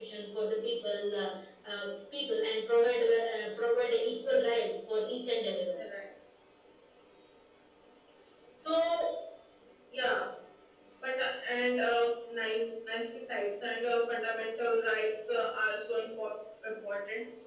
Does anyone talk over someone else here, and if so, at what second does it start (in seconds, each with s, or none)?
none